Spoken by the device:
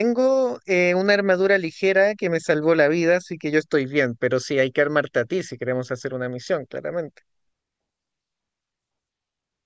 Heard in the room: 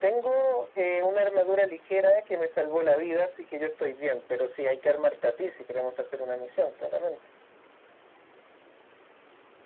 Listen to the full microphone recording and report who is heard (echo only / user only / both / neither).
echo only